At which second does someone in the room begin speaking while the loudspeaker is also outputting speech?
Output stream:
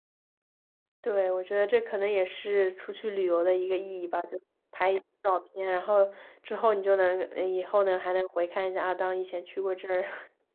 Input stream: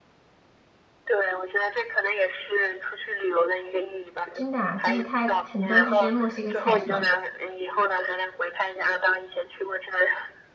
4.3 s

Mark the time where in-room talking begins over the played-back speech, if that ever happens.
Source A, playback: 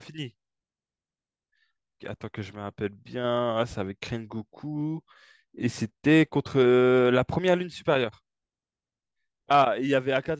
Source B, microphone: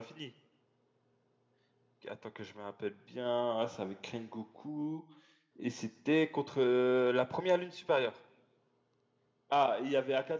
none

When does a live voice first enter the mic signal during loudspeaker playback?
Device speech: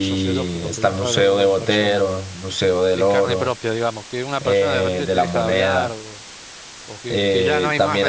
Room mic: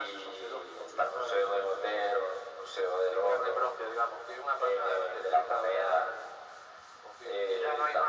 none

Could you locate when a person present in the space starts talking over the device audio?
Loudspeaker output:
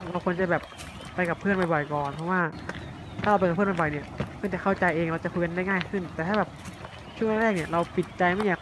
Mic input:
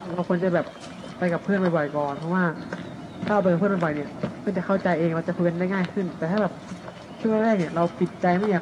none

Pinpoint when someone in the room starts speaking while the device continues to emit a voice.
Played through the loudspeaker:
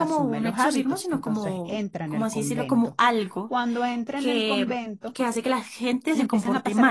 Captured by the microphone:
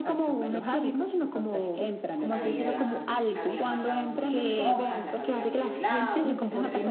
2.3 s

